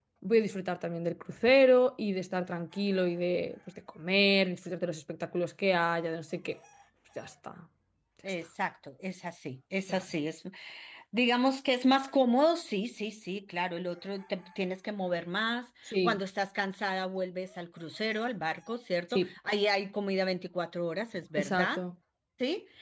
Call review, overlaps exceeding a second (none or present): none